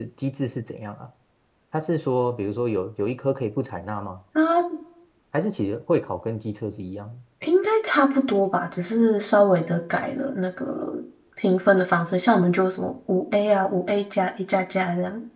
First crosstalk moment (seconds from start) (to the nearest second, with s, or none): none